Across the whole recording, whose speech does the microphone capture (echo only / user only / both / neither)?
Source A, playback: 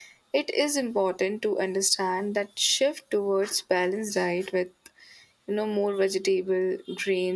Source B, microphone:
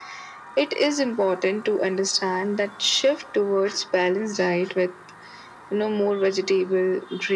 echo only